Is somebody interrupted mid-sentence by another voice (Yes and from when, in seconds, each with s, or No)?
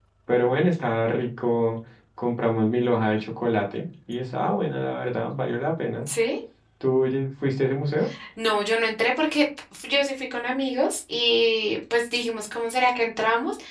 No